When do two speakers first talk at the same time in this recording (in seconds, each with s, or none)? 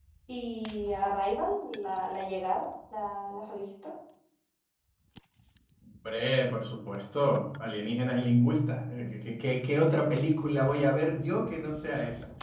none